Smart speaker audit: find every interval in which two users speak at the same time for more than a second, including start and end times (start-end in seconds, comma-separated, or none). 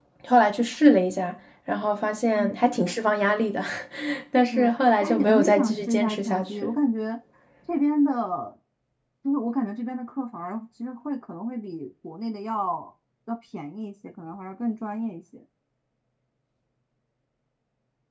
4.5-6.8